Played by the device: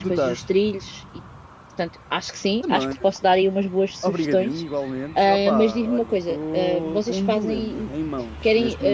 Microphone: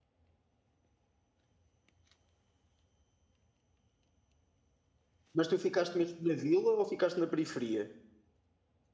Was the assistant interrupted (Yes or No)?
Yes